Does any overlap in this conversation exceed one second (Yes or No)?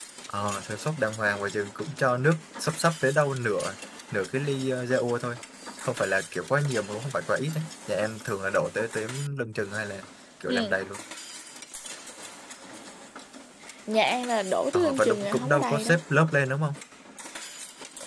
Yes